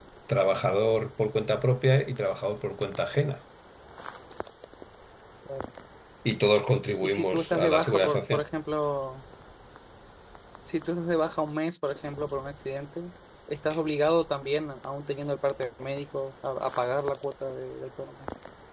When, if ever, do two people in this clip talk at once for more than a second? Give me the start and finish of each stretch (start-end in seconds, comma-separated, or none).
7.0-8.4